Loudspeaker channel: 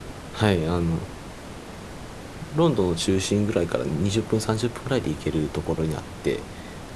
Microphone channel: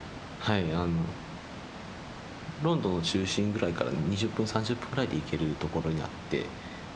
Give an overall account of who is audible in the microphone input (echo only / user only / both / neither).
echo only